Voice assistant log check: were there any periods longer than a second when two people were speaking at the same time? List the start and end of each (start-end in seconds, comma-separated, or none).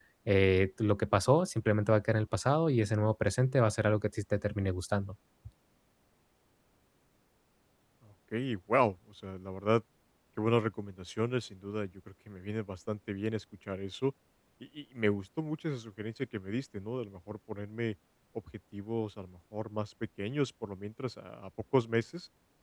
none